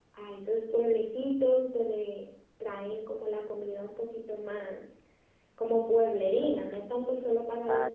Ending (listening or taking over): taking over